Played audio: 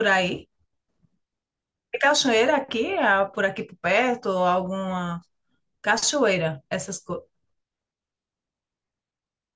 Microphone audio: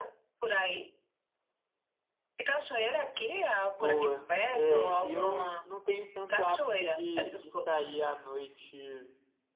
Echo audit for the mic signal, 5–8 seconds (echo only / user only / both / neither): both